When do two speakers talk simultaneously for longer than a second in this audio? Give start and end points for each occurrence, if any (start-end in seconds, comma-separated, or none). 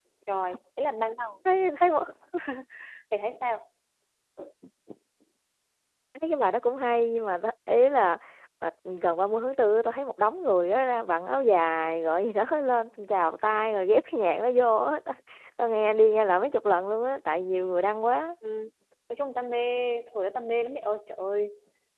none